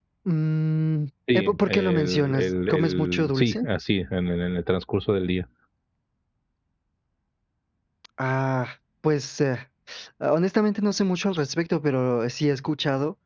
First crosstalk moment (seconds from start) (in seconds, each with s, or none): 1.3 s